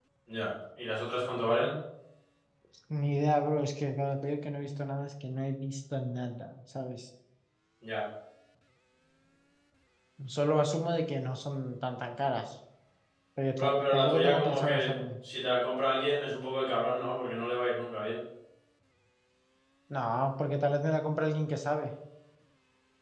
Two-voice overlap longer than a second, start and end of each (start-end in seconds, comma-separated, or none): 13.6-15.0